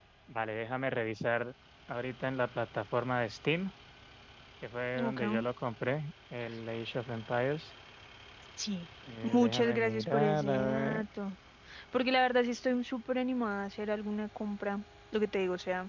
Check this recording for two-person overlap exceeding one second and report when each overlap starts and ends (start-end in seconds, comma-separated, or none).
9.2-11.0